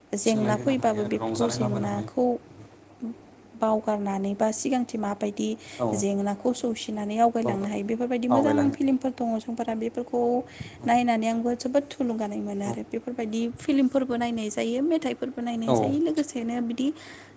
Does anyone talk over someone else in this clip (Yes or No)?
Yes